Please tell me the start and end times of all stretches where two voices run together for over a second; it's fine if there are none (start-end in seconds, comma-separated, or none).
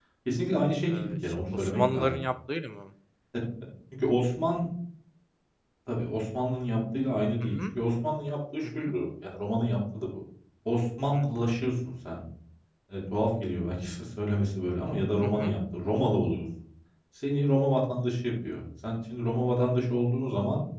0.9-2.2